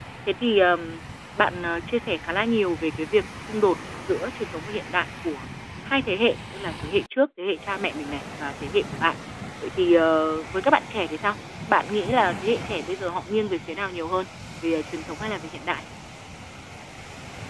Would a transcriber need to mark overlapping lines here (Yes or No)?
No